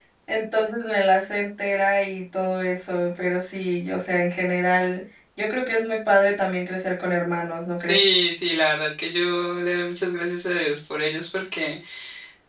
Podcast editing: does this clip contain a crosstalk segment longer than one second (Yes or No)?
No